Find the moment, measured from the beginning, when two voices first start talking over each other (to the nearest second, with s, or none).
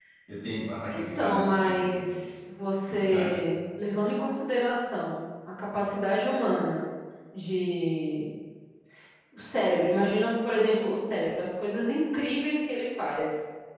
1 s